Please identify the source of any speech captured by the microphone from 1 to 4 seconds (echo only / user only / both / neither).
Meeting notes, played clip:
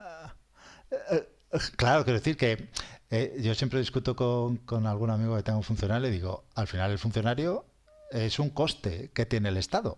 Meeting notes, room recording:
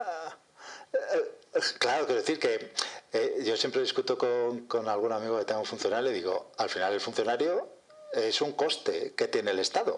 echo only